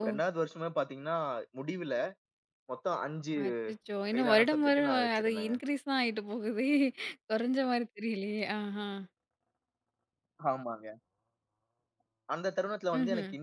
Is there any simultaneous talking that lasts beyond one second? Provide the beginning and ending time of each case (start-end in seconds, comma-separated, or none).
4.1-5.5